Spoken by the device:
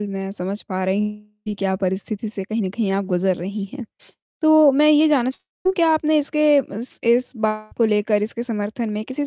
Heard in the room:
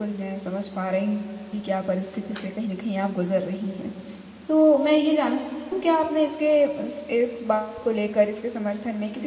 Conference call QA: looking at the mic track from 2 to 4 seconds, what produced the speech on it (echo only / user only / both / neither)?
echo only